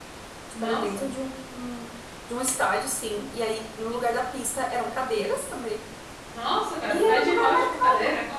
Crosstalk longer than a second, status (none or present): present